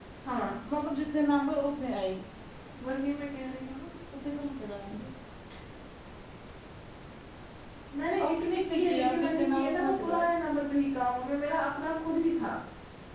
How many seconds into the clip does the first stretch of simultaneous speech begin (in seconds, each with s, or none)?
8.3 s